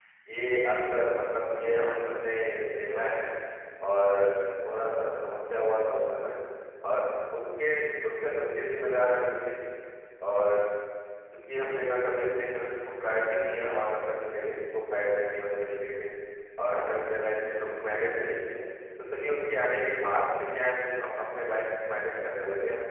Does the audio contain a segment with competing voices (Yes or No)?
No